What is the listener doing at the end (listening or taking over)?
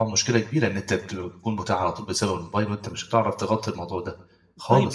taking over